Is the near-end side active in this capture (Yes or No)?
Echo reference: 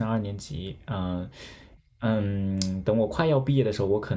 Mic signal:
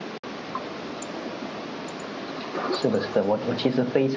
Yes